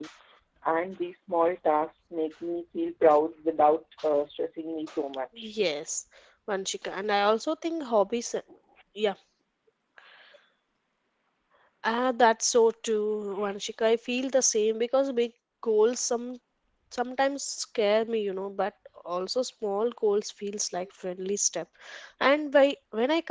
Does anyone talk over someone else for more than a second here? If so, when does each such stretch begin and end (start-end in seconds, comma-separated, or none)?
none